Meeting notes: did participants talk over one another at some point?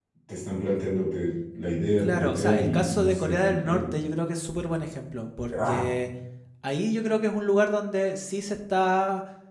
Yes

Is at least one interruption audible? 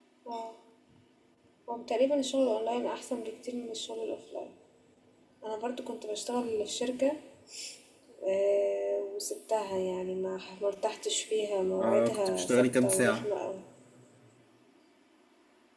Yes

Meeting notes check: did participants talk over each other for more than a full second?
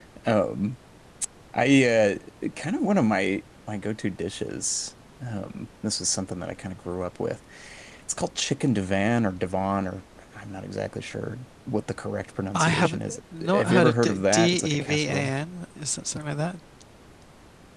Yes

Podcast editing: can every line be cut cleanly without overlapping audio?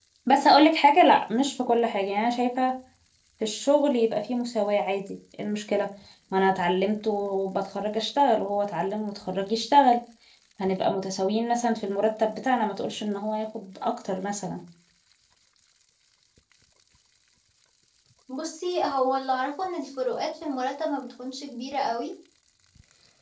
Yes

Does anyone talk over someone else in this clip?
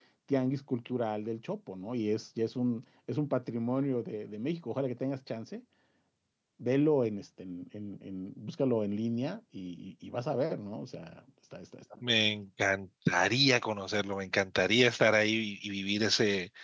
No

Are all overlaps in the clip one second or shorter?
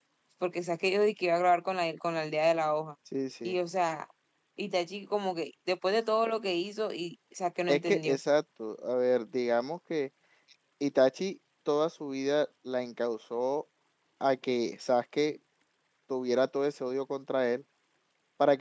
Yes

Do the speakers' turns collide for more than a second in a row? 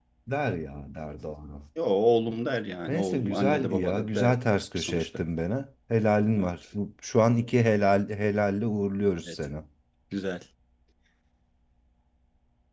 Yes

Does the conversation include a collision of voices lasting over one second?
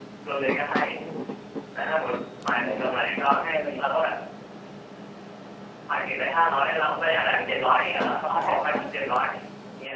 Yes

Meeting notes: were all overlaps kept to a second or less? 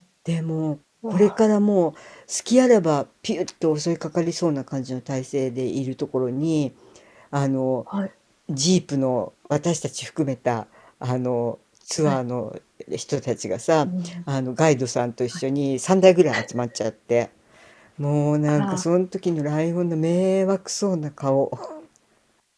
Yes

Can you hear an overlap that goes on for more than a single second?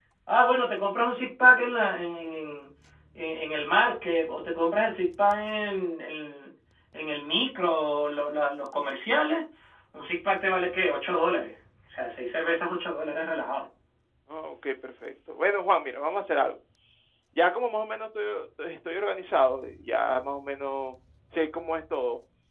No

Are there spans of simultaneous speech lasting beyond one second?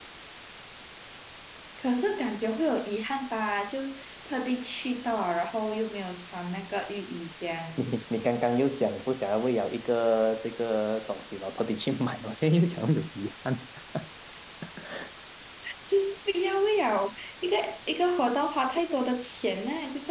No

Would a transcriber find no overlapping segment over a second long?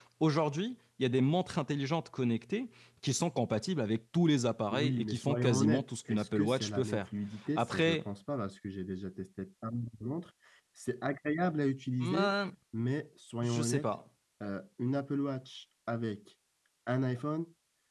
No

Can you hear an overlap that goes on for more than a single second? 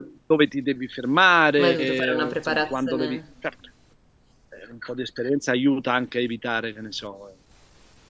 Yes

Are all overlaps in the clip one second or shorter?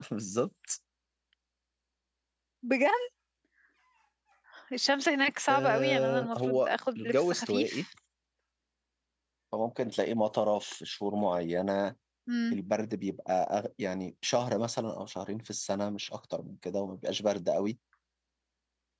No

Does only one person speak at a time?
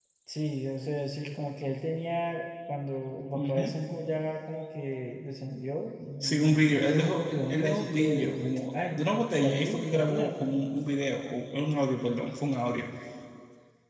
No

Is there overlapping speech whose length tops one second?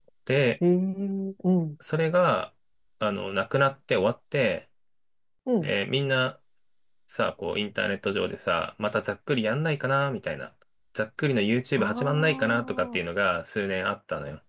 Yes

